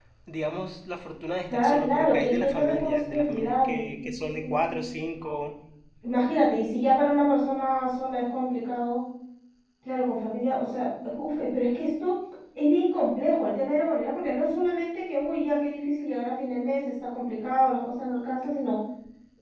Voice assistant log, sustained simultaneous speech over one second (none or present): present